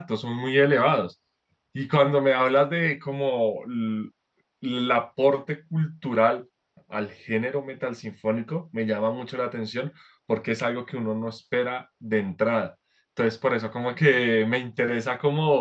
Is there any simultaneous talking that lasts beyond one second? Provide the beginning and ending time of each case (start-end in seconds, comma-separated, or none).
none